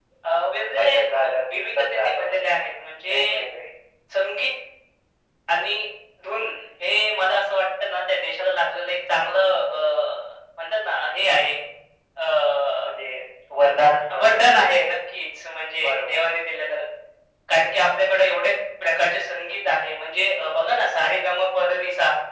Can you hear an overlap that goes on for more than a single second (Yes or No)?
Yes